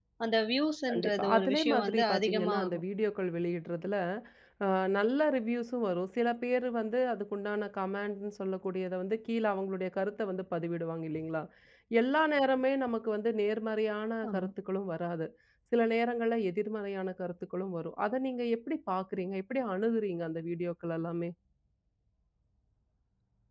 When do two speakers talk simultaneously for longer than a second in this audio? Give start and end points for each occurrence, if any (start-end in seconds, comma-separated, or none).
0.9-2.8